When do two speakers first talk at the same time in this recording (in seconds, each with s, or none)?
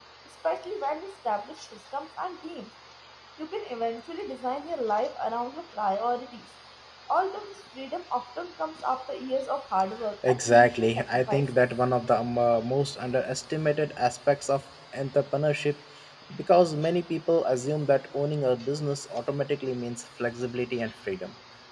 10.2 s